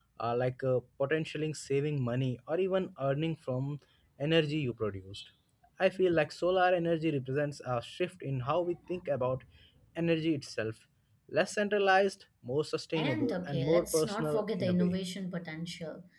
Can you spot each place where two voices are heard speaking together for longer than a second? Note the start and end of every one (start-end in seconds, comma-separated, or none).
12.9-15.0